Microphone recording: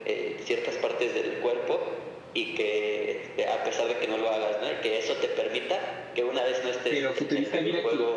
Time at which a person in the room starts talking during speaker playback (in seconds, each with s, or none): 6.8 s